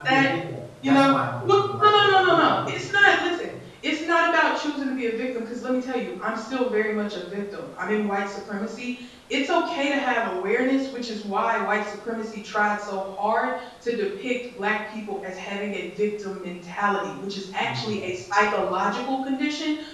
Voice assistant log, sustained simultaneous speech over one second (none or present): present